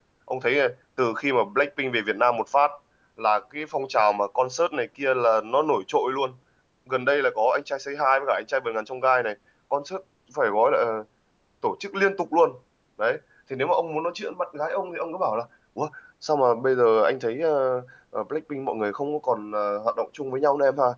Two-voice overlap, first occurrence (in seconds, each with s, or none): none